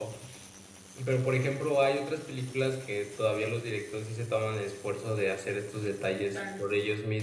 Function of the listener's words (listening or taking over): listening